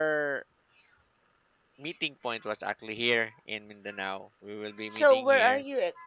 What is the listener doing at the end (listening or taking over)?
taking over